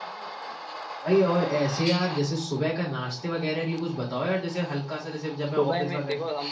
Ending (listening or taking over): taking over